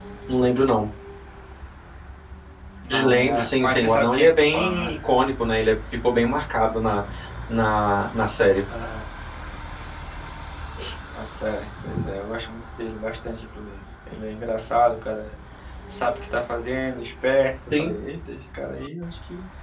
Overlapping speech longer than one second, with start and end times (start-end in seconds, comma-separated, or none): 2.9-4.9